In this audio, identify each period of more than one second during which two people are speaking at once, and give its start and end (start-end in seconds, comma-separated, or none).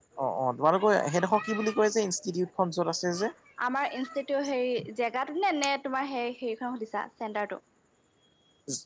none